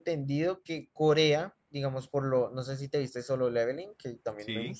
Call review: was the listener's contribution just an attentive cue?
Yes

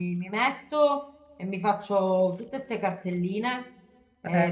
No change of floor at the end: Yes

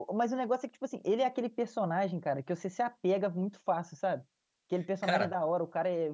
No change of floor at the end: Yes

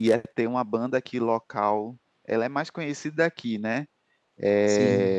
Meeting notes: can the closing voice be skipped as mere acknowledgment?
Yes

